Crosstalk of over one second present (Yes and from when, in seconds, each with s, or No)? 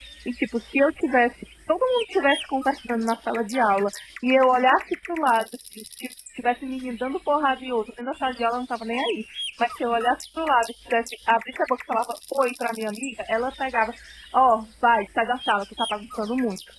No